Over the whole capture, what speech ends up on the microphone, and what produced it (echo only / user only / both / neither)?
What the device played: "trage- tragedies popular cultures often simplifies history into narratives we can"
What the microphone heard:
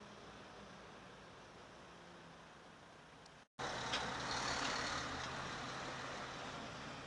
neither